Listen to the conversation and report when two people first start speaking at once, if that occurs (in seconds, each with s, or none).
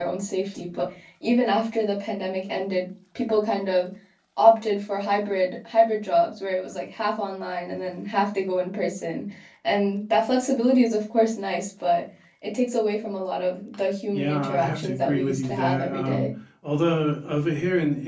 14.1 s